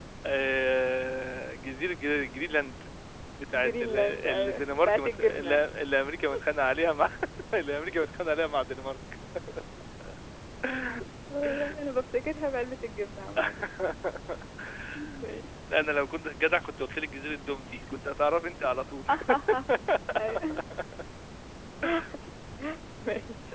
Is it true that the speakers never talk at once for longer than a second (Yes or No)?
No